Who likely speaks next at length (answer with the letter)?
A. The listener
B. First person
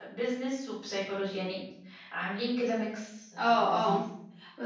A